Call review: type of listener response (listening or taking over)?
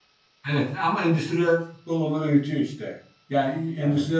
listening